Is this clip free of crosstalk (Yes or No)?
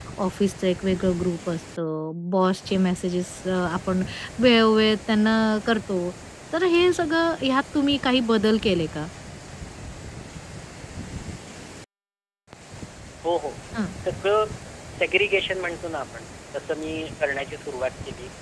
Yes